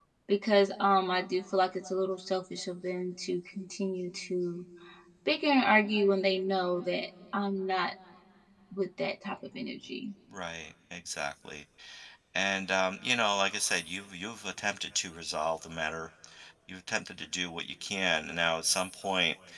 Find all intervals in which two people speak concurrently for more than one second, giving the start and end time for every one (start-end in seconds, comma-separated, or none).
none